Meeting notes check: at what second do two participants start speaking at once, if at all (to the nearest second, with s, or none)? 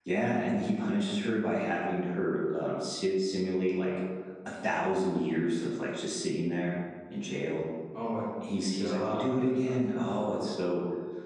9 s